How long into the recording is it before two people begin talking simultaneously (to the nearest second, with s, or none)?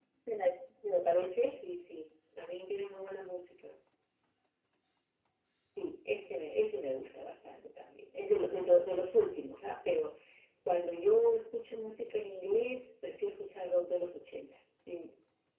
none